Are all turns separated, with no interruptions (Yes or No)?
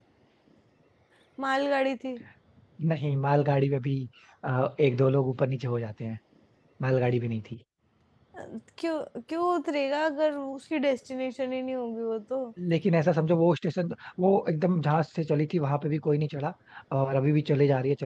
Yes